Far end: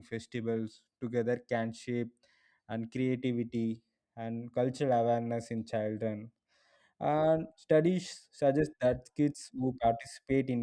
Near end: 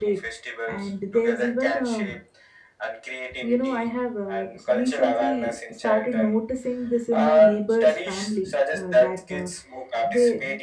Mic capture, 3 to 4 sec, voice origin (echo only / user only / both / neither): both